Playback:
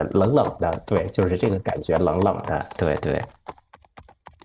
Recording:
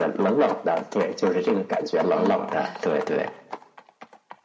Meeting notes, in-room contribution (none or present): present